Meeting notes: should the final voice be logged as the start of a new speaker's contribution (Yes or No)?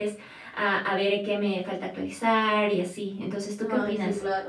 Yes